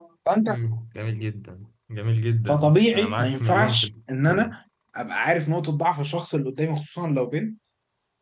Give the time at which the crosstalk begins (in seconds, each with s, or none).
2.5 s